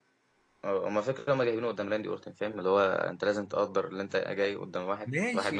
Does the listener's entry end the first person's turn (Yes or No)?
Yes